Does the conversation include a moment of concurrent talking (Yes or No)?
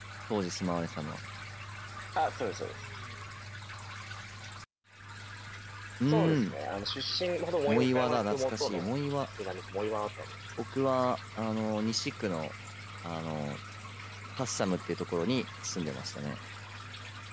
Yes